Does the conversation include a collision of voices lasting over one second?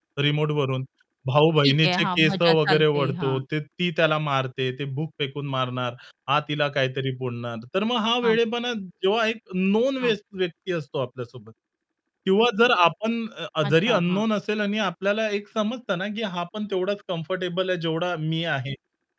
Yes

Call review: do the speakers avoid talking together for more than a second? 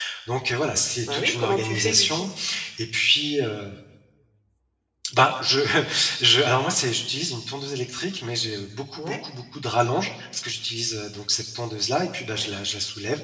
No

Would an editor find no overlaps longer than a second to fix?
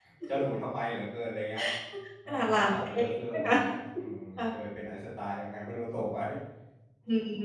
No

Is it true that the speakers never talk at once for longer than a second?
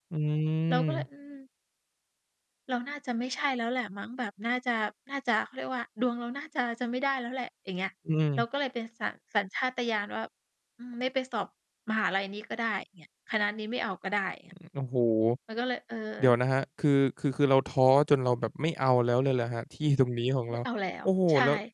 Yes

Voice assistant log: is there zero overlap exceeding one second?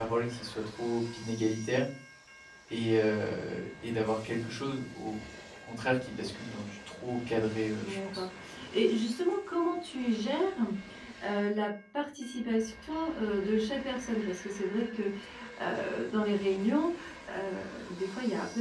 Yes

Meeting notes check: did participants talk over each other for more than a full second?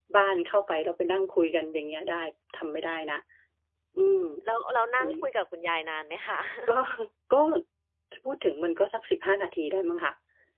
No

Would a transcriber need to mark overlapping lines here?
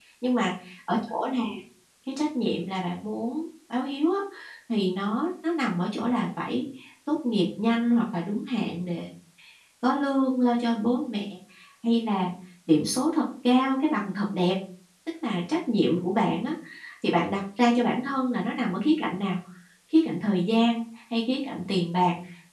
No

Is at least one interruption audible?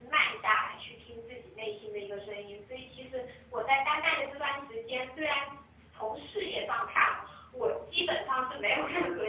No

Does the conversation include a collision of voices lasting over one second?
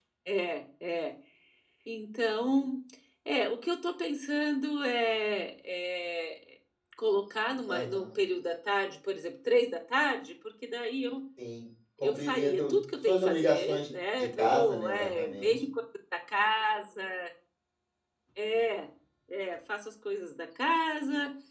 Yes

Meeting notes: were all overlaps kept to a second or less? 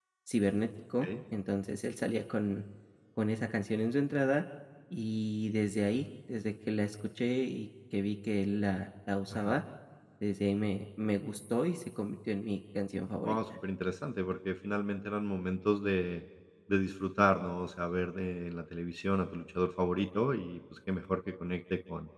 Yes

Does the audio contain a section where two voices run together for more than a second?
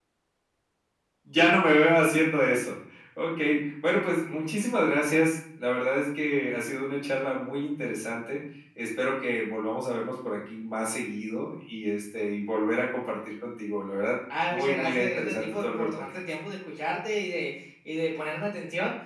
Yes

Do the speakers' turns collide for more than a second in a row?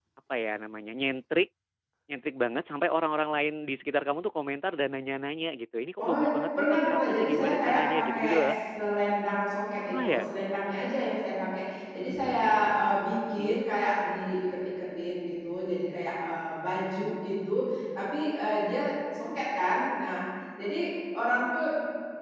Yes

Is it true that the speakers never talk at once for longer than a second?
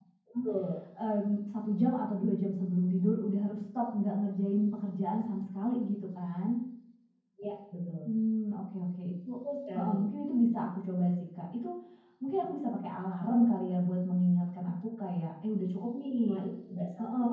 Yes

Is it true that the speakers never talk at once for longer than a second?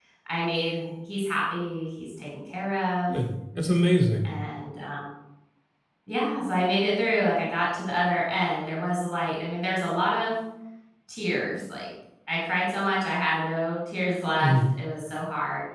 Yes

